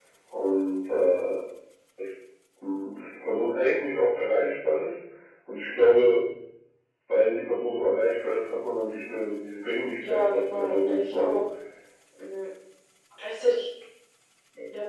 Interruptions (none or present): present